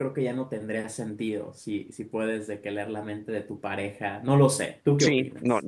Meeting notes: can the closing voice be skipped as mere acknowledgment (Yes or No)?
No